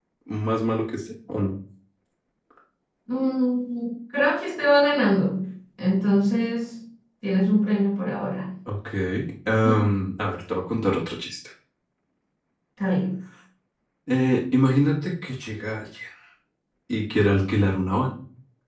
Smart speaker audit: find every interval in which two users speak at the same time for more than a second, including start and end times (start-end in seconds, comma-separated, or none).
none